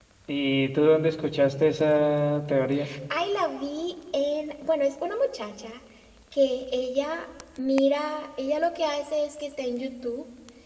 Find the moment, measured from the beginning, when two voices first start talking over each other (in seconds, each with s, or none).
none